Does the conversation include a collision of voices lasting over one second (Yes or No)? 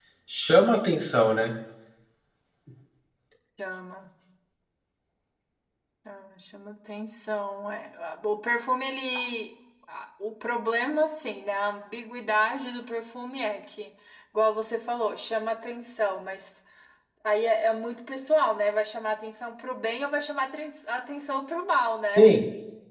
No